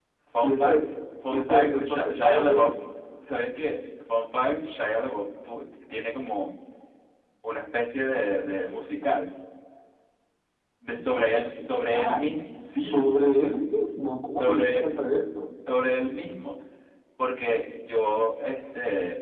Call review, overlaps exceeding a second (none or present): present